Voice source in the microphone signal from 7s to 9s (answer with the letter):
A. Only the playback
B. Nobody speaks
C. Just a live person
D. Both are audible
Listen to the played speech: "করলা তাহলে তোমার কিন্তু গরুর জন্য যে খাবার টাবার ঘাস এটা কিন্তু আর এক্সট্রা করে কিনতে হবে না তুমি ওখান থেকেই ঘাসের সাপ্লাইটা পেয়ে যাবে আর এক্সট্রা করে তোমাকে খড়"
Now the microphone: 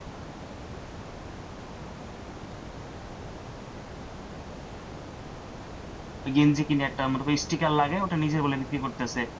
C